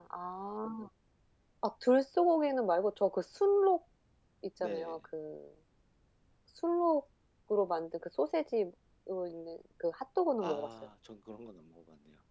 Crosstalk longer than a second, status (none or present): none